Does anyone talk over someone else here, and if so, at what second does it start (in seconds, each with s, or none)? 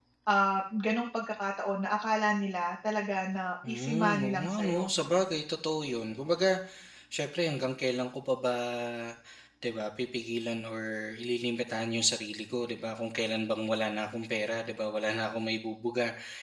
3.6 s